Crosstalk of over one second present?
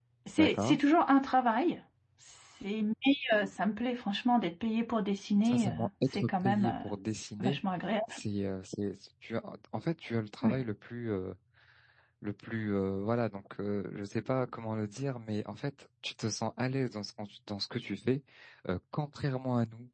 Yes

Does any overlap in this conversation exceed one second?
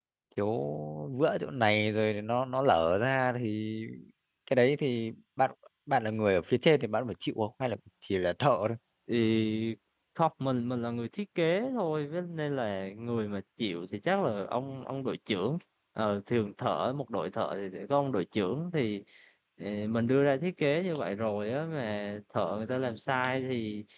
No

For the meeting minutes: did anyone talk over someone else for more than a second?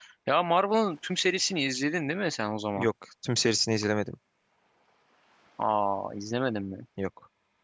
No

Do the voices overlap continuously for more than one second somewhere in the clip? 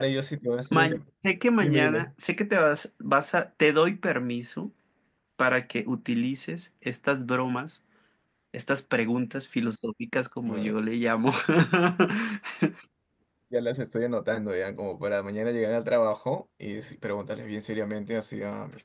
No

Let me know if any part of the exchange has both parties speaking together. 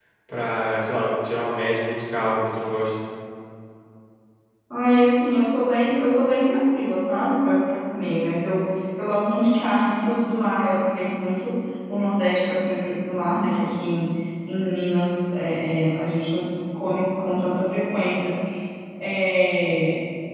No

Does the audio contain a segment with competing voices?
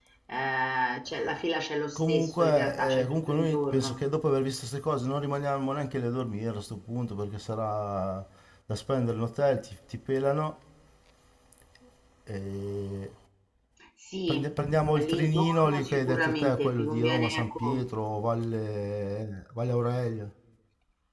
Yes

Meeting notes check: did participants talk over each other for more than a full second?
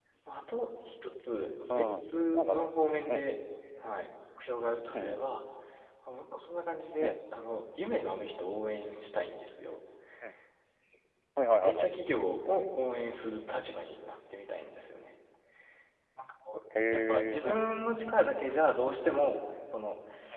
Yes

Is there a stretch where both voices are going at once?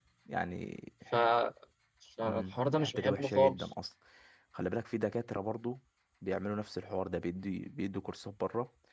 Yes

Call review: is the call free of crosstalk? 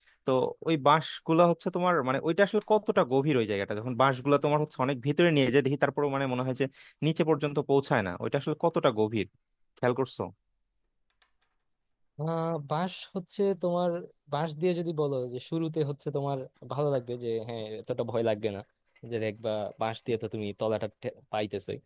Yes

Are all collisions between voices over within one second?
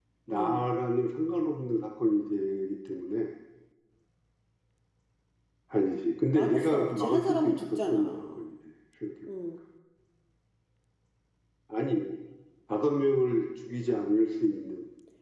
No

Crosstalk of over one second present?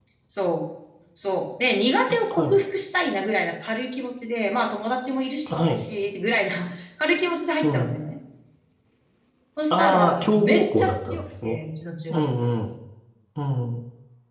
Yes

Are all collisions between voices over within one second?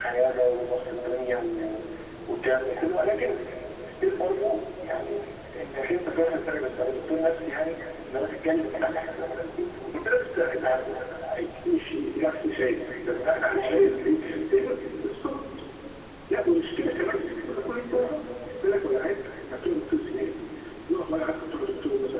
Yes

